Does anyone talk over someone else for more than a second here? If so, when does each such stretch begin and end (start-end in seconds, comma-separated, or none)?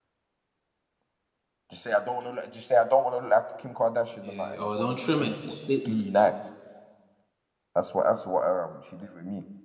4.2-6.0